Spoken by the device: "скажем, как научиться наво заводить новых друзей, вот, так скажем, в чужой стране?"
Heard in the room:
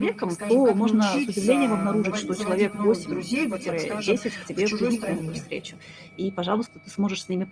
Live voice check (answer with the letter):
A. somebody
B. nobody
A